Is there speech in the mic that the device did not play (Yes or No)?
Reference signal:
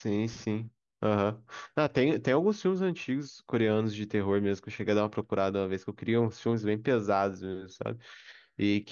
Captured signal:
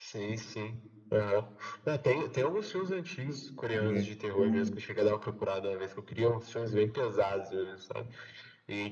Yes